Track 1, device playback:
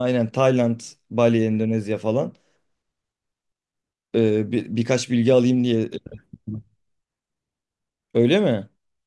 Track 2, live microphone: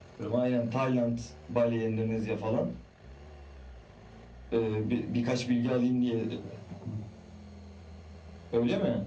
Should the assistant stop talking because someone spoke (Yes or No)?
No